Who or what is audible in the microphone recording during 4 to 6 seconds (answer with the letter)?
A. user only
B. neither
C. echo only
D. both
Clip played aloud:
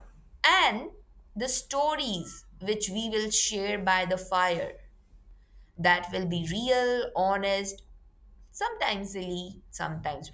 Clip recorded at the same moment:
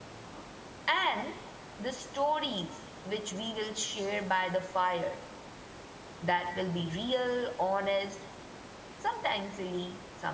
C